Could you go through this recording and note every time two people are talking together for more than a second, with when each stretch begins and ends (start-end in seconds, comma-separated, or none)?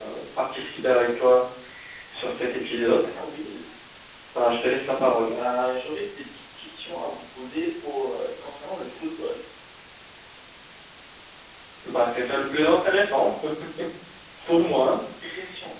none